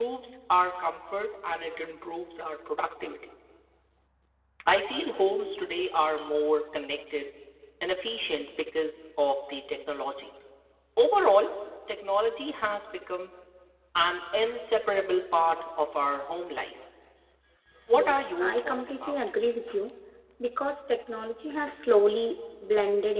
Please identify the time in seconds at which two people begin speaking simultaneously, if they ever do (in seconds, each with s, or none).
17.9 s